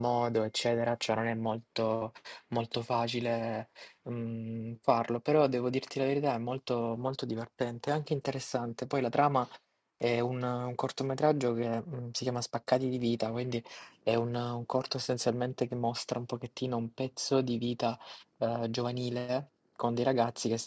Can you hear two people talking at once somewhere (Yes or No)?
No